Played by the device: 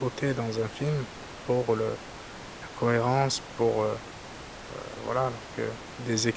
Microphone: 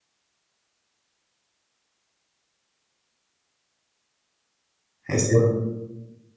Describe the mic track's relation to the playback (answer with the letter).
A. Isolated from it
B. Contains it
A